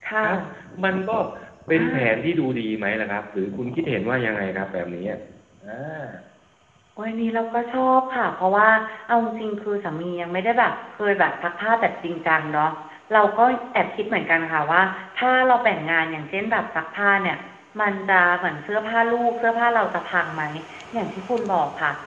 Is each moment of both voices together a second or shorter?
Yes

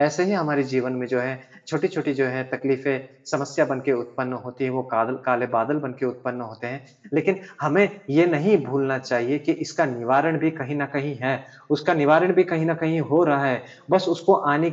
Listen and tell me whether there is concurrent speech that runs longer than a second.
No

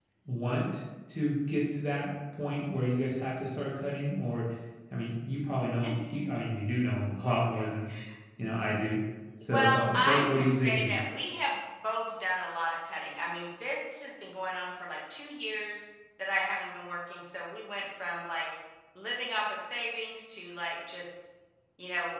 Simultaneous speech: Yes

